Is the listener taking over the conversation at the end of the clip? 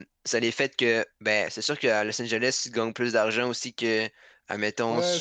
Yes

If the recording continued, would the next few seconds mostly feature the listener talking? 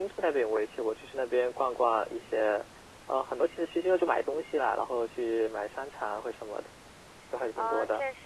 Yes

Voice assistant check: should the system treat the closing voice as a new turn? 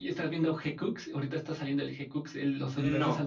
Yes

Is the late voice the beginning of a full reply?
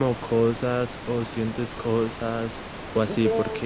No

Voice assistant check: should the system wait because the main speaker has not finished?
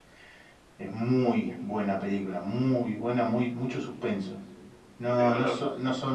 Yes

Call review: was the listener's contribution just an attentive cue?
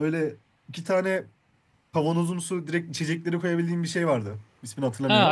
No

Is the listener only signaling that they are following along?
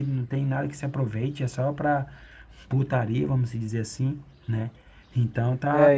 No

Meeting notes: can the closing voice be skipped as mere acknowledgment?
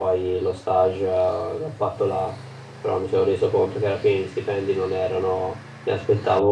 Yes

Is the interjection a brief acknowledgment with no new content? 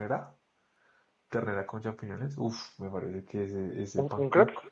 Yes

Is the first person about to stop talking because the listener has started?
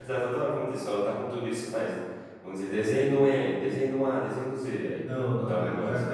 Yes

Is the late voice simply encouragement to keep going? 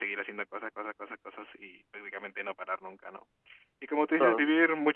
Yes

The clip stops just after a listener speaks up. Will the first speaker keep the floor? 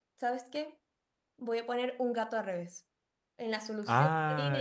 No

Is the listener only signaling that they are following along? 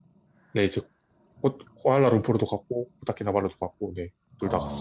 No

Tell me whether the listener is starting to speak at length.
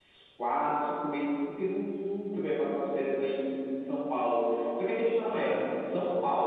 No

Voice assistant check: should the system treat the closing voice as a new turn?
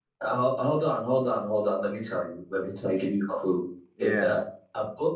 No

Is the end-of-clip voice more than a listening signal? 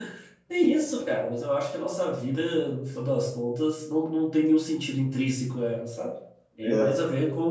No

